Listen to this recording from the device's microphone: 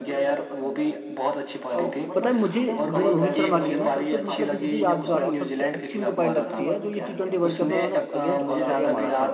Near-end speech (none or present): present